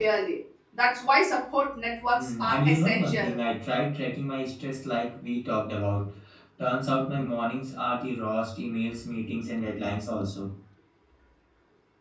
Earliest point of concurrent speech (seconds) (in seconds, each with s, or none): 2.1 s